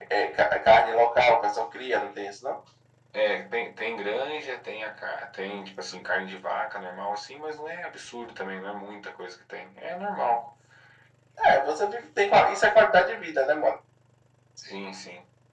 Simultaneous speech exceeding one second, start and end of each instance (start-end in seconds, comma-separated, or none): none